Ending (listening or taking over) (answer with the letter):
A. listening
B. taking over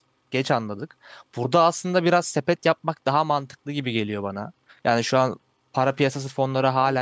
B